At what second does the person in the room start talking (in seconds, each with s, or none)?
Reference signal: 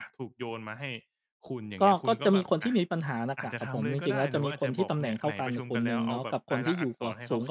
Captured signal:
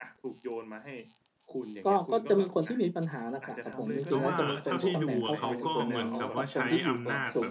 4.1 s